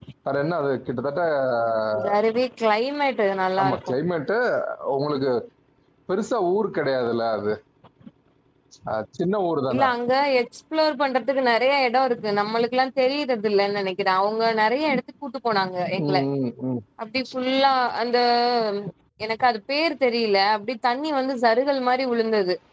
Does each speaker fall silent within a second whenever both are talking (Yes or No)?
Yes